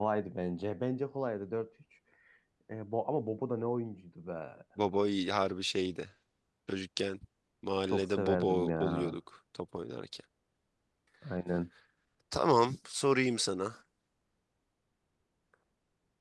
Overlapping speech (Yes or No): Yes